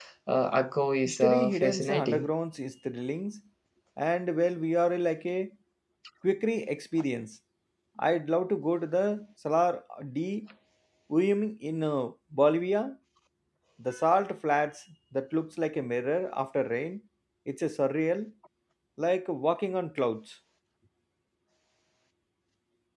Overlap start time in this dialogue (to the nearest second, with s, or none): 1 s